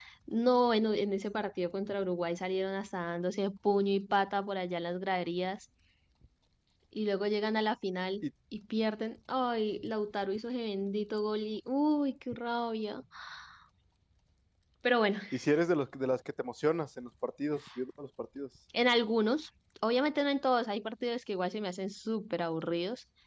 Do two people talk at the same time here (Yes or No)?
No